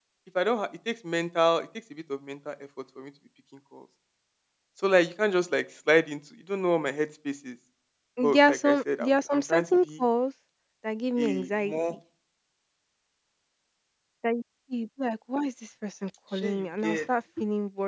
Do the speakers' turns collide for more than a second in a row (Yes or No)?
Yes